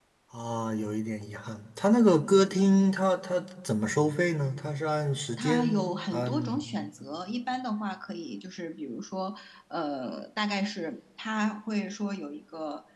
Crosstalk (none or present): present